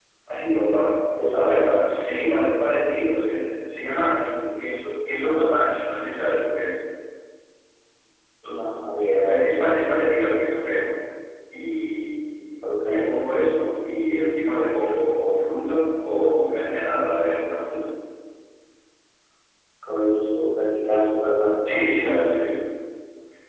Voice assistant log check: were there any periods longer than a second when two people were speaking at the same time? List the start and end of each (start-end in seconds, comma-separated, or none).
none